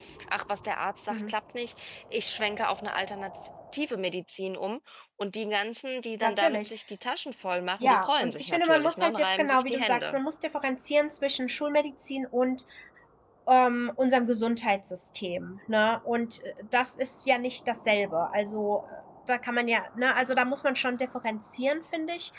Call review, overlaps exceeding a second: present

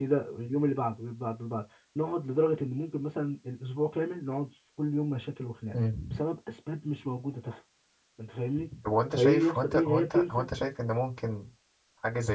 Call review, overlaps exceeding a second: present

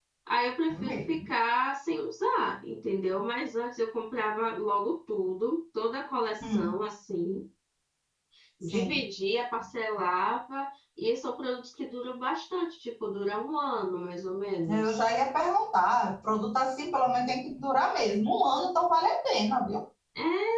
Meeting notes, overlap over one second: none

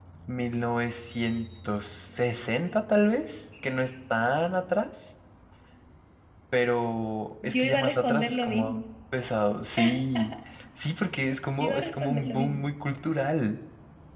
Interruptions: present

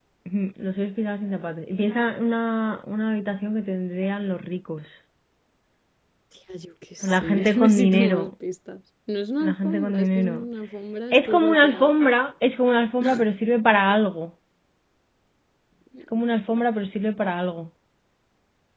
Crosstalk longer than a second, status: present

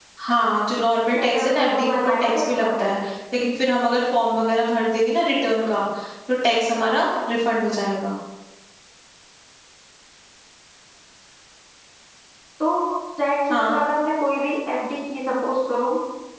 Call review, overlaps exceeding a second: present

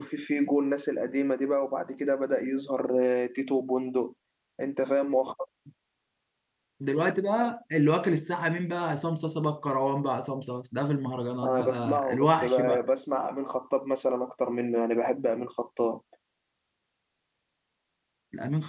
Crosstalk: present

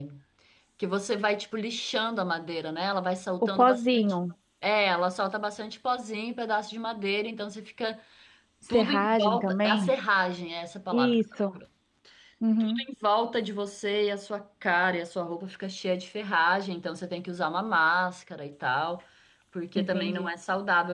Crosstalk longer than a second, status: present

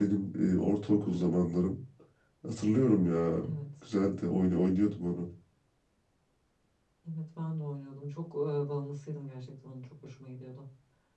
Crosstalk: none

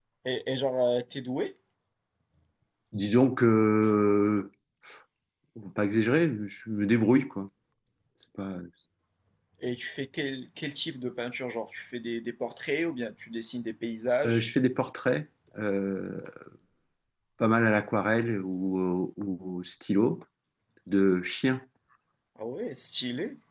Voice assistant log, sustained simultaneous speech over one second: none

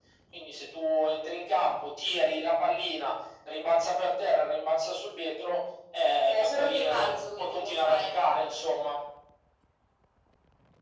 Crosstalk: present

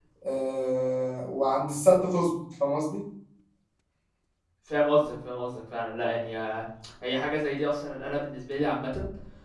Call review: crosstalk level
none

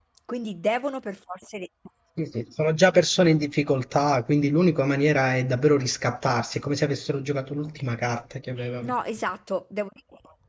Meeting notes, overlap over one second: none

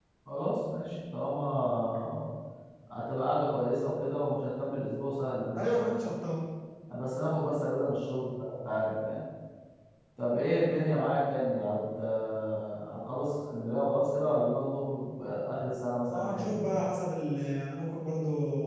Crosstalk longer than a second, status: none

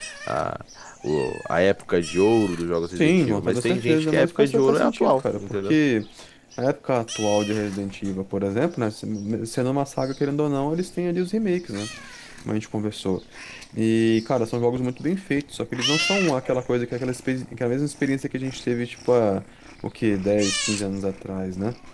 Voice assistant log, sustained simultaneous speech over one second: present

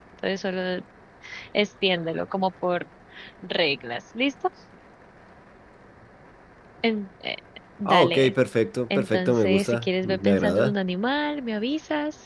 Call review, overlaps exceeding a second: present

